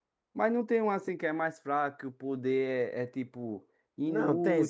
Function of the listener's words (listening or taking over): taking over